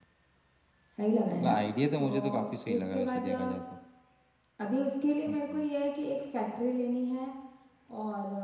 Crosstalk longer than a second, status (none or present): present